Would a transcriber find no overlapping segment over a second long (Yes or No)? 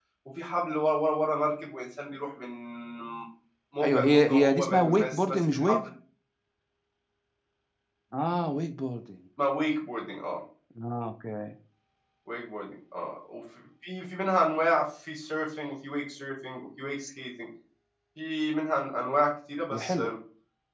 No